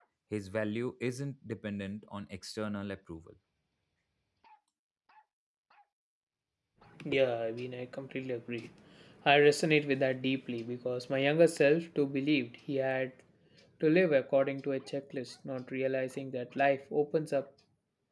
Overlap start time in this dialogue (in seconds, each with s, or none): none